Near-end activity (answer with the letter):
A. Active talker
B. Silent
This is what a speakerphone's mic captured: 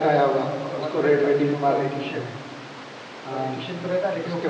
A